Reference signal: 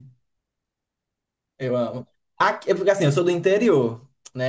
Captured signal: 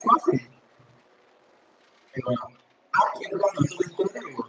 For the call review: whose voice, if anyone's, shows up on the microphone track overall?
echo only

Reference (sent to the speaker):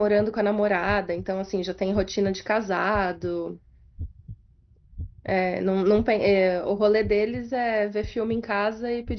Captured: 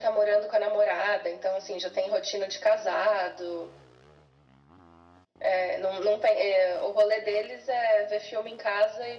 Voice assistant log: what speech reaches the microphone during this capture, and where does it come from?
echo only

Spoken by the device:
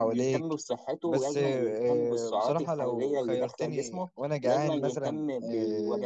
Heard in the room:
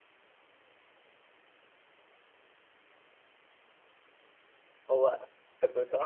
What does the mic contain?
user only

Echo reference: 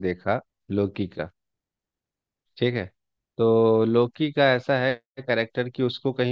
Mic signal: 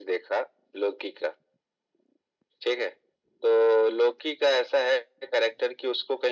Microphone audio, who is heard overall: echo only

